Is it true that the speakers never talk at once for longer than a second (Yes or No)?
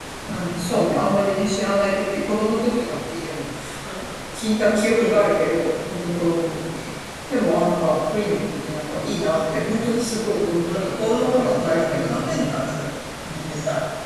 No